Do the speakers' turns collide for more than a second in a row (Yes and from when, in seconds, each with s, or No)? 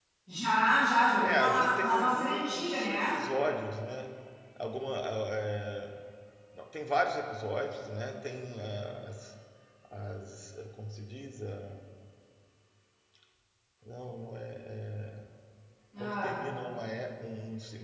Yes, from 1.2 s